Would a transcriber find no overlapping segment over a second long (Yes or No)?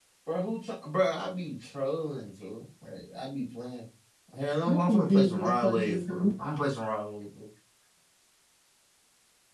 No